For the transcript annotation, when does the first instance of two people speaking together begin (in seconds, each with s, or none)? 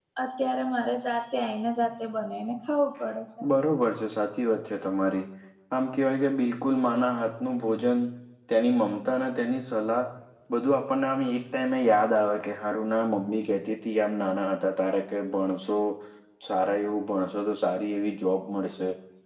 none